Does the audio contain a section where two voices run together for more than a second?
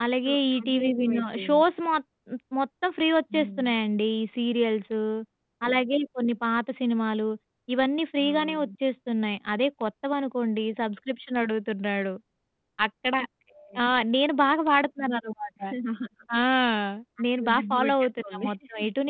Yes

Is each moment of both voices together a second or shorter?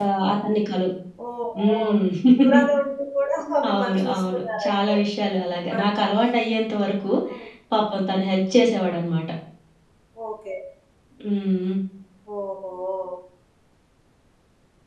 No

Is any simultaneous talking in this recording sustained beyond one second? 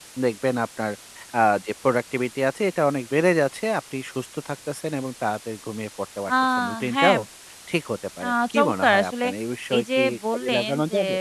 Yes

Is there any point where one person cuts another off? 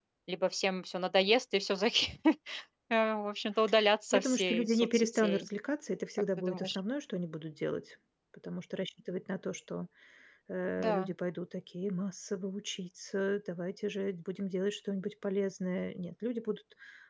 Yes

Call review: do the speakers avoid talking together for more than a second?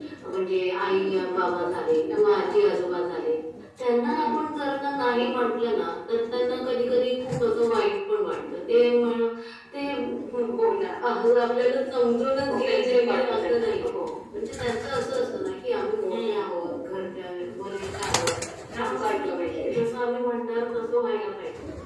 No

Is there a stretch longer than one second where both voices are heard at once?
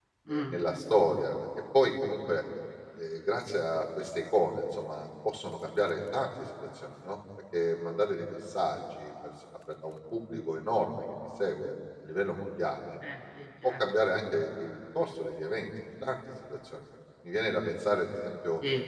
No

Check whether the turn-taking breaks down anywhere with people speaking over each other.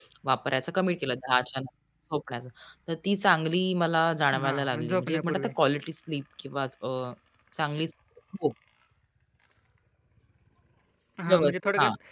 Yes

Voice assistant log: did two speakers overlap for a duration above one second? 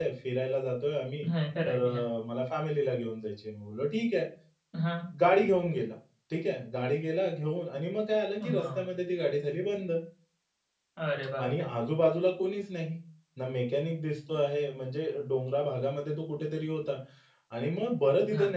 No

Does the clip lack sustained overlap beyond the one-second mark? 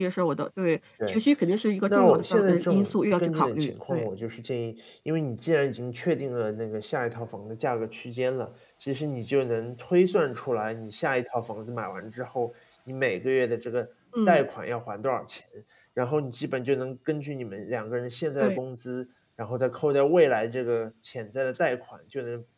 No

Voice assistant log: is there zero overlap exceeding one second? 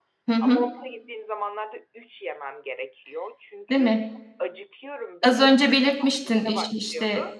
No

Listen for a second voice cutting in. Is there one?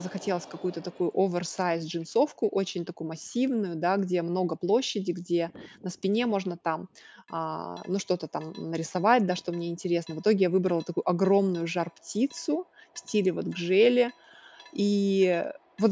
No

